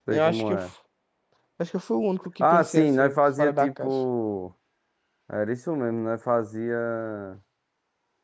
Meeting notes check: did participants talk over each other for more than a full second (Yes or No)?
Yes